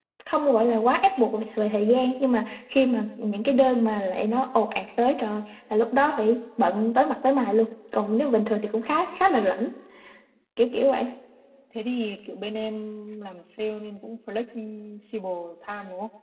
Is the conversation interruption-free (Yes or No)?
Yes